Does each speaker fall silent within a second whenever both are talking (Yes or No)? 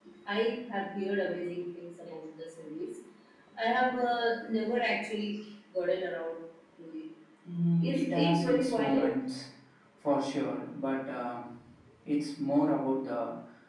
No